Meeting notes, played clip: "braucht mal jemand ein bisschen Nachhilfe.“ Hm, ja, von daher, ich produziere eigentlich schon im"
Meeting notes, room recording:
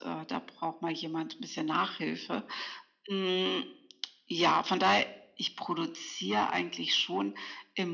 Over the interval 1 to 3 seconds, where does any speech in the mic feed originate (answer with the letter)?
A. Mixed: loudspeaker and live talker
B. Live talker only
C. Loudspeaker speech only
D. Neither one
C